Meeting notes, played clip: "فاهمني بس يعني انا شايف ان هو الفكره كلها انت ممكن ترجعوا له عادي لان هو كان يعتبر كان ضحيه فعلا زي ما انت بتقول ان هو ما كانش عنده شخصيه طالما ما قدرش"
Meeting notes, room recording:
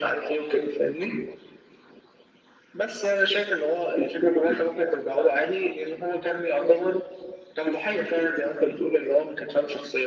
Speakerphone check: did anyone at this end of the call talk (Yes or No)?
No